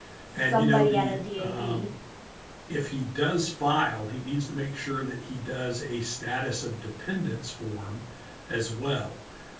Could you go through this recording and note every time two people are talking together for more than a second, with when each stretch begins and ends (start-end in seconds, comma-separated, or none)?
0.5-1.9